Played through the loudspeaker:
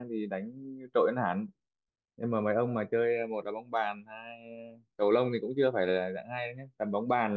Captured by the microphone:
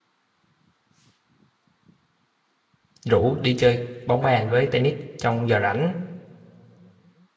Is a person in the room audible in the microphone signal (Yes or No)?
Yes